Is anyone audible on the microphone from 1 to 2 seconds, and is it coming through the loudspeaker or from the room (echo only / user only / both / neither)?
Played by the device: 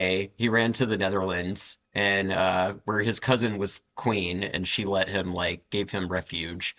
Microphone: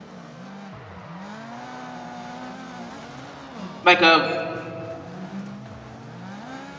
neither